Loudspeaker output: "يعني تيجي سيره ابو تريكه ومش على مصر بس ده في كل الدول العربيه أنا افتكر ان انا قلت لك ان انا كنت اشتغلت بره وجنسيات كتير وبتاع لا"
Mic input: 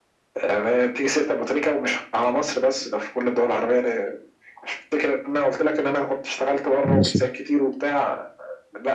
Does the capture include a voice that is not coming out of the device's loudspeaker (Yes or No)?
Yes